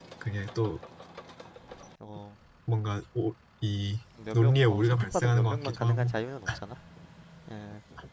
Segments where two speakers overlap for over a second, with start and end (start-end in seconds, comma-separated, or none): 4.3-6.1